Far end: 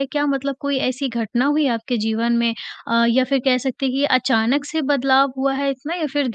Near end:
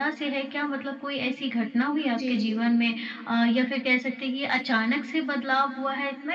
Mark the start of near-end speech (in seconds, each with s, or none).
2.2 s